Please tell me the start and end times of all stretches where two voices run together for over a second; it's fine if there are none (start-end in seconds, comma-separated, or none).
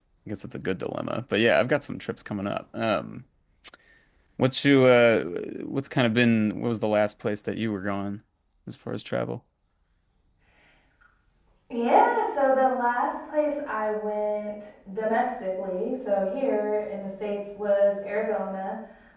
none